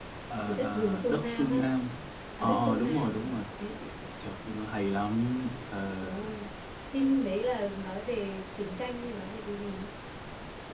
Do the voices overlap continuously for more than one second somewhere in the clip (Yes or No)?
Yes